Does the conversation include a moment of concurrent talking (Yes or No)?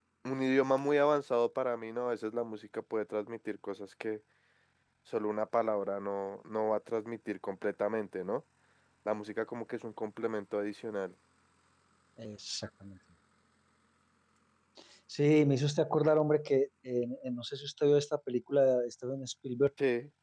No